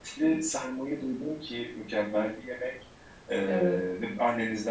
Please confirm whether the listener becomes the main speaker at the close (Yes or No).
No